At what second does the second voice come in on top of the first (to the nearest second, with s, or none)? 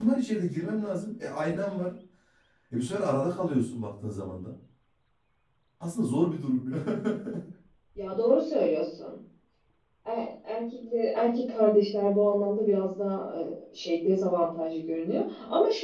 none